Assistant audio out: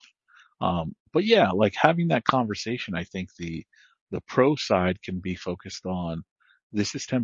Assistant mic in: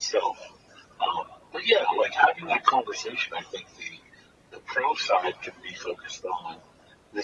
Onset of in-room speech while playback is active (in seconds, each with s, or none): none